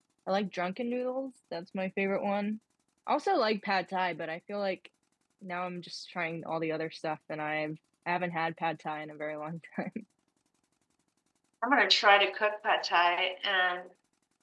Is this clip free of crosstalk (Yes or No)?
Yes